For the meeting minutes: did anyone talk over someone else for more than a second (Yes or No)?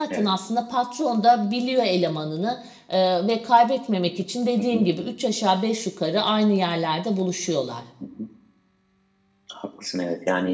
No